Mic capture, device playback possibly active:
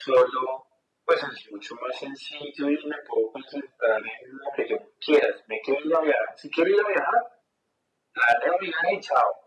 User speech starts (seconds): none

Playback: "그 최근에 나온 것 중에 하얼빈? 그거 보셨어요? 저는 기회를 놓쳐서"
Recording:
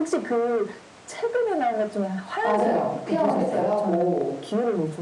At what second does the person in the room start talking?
2 s

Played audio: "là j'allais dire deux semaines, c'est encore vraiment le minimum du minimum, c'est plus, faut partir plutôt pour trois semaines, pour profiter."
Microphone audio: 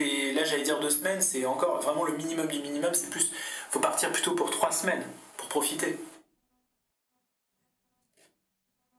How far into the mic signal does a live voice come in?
none

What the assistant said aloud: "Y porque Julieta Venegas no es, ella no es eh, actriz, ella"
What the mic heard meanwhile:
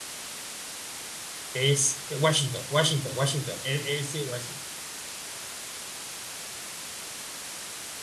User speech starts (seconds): 2 s

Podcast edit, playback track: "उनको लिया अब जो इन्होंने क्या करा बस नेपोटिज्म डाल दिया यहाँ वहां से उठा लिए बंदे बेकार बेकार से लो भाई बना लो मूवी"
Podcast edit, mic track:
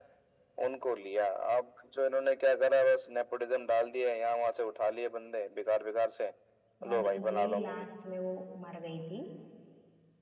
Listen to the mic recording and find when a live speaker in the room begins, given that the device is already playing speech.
7 s

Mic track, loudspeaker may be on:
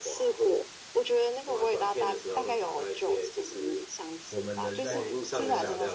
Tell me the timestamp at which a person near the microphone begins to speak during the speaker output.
4 s

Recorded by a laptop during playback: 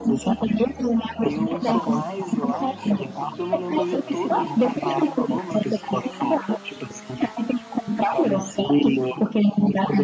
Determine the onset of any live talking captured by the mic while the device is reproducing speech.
1 s

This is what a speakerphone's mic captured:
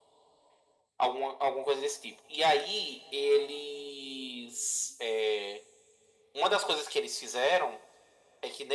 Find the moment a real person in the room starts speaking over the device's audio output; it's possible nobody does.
none

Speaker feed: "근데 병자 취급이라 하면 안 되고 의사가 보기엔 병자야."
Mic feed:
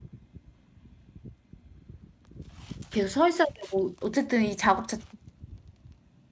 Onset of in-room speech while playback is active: 3 s

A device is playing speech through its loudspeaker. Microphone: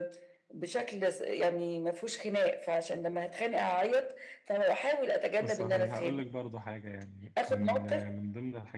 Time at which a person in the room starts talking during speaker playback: 5 s

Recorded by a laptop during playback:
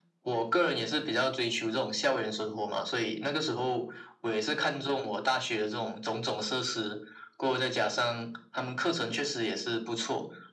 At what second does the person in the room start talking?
none

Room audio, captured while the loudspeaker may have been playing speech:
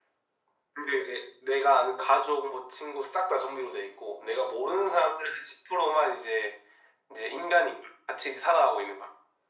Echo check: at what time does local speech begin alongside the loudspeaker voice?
none

